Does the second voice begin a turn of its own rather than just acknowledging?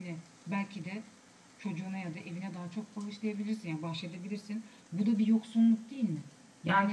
Yes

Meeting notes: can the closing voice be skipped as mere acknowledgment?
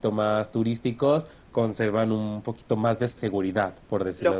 No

